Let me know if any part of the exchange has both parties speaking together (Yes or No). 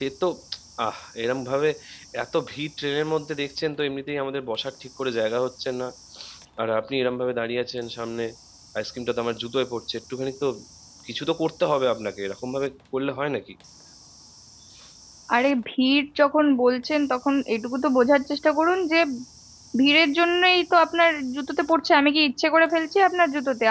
No